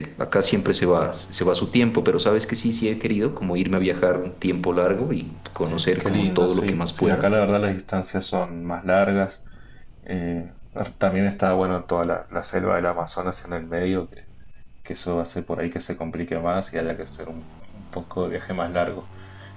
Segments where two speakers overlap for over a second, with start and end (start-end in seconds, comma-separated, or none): 6.0-7.3